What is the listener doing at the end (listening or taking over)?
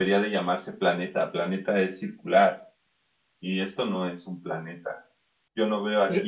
listening